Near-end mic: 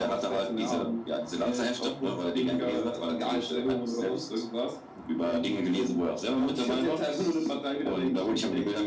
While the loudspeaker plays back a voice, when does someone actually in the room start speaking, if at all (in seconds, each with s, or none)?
none